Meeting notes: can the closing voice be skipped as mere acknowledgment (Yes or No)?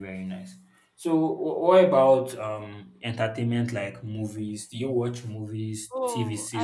No